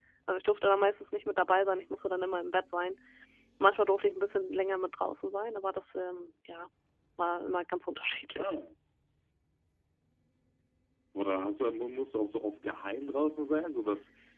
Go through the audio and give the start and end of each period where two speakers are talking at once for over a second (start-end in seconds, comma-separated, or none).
none